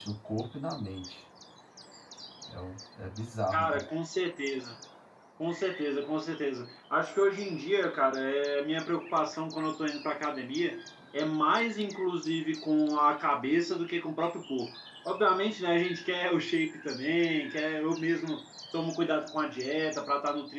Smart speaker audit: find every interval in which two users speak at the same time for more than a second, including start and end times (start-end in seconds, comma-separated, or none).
none